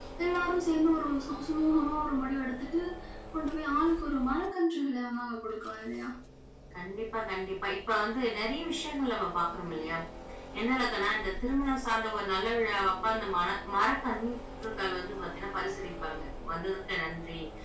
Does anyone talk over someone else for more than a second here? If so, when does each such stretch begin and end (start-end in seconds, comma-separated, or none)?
none